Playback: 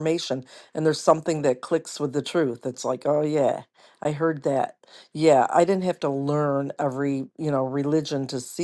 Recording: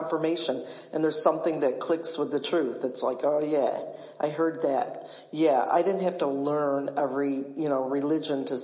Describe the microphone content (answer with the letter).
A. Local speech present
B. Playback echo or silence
B